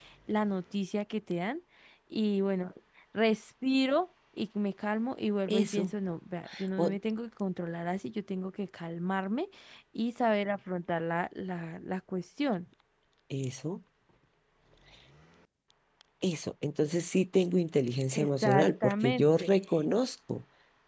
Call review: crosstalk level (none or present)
present